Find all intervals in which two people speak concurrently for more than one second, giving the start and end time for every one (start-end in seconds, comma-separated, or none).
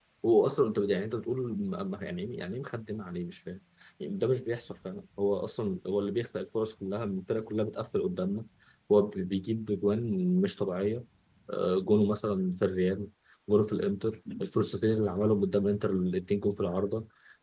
none